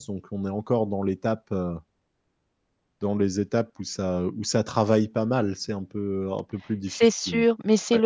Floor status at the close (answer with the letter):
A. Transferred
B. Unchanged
A